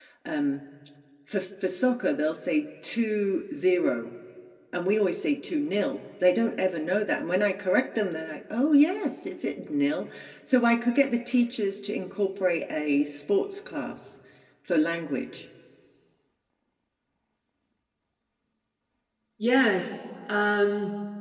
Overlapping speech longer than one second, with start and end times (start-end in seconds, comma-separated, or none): none